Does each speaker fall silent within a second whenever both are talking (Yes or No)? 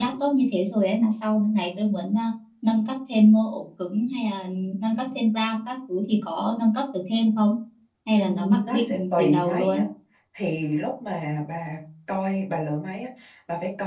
No